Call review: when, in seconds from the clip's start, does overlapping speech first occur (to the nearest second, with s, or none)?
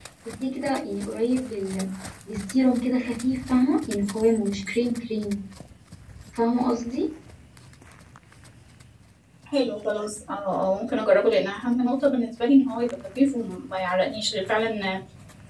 none